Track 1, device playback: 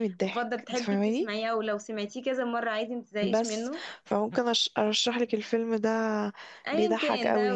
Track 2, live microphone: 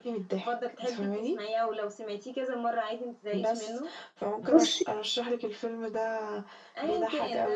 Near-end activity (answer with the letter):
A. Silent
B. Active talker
B